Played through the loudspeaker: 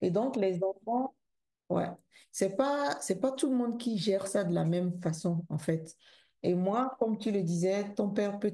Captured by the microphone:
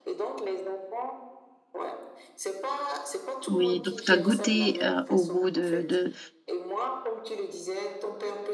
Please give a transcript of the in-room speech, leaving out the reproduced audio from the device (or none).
oui, donc tu as goûté euh, au goût de, de,